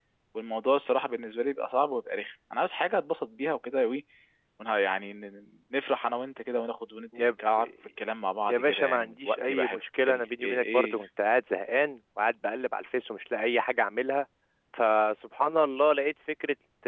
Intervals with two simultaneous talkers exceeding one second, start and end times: 8.5-11.0

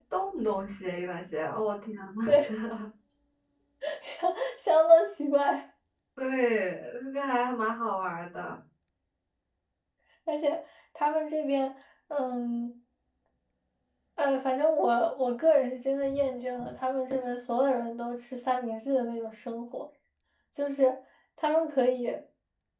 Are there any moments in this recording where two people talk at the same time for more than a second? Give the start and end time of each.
none

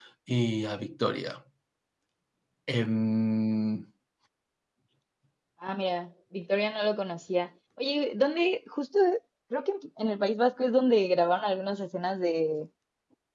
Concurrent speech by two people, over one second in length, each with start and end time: none

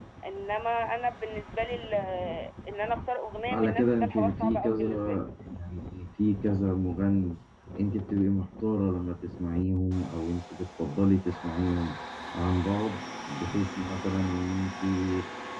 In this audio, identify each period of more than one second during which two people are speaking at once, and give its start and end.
3.5-5.2

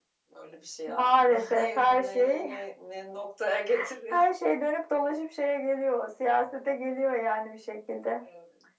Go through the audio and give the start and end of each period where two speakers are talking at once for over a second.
0.9-2.6

